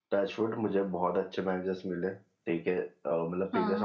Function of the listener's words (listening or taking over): listening